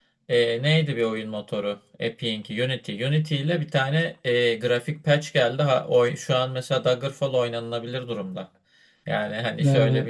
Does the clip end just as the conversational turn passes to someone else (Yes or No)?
No